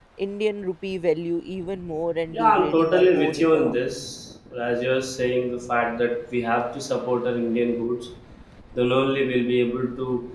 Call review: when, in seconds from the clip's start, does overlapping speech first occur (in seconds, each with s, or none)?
2.3 s